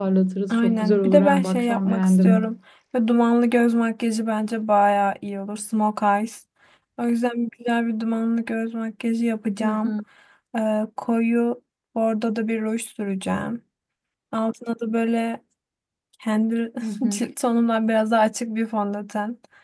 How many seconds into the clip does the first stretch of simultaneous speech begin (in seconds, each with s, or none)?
0.5 s